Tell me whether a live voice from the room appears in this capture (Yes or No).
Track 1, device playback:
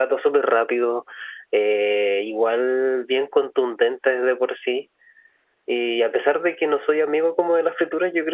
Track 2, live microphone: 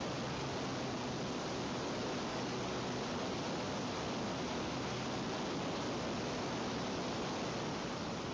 No